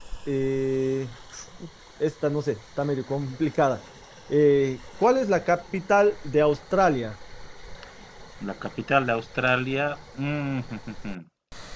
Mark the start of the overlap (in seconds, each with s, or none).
none